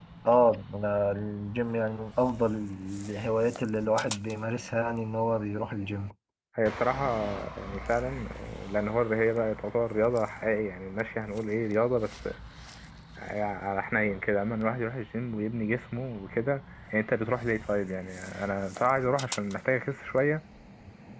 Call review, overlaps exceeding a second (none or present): none